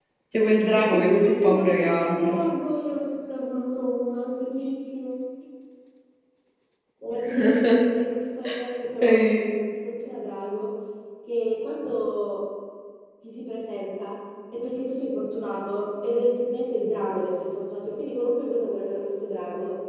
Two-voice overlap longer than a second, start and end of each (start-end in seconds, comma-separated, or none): 0.7-2.4